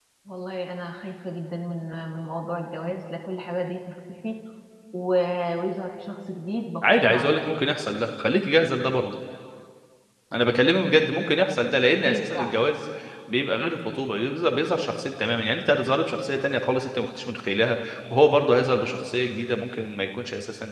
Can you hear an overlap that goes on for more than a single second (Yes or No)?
No